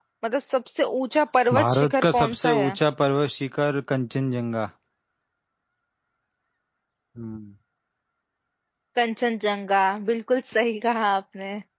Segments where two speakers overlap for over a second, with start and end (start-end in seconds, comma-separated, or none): 1.5-2.8